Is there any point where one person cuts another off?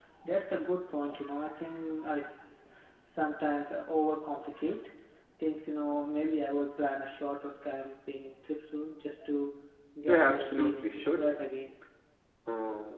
Yes, from 10.1 s

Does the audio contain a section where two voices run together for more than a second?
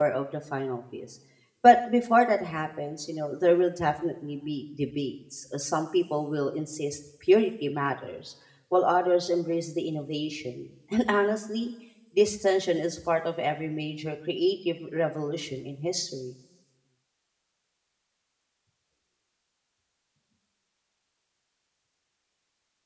No

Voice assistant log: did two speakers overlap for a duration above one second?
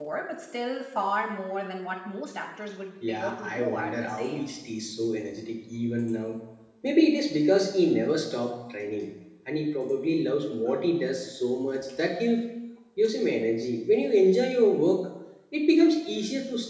Yes, from 3.0 s

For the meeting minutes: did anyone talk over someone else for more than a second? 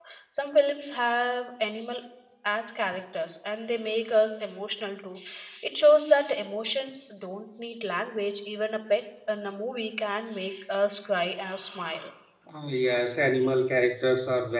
No

